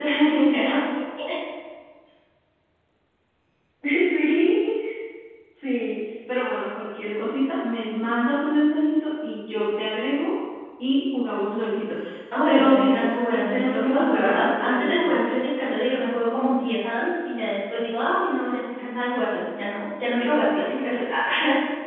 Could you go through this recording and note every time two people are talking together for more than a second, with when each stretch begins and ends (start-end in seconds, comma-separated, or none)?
12.5-15.1